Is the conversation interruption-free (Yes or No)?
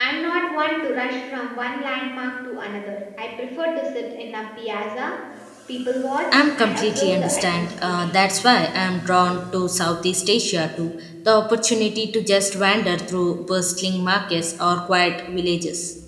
No